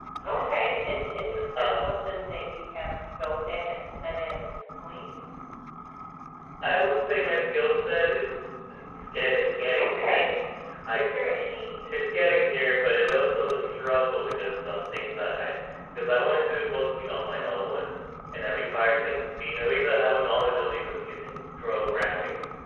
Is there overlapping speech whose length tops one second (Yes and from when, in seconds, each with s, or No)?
No